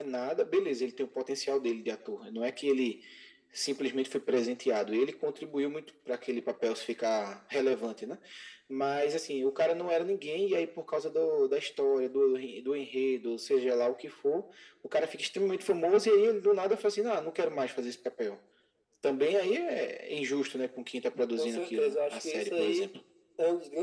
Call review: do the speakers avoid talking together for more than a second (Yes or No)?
No